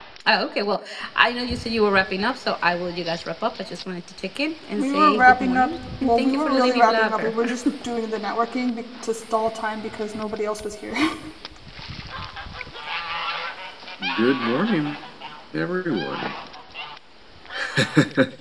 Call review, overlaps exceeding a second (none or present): present